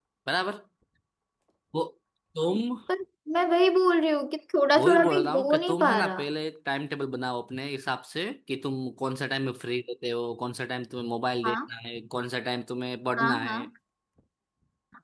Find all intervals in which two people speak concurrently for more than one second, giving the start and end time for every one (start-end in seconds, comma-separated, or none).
4.8-6.2